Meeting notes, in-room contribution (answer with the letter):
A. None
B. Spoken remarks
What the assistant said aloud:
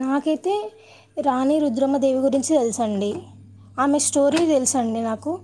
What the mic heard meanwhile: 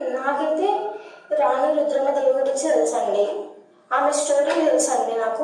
A